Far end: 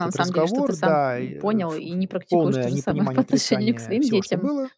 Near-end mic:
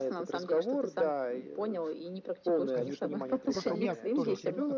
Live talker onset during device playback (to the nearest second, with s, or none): 3 s